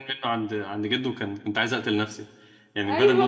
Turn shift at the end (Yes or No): Yes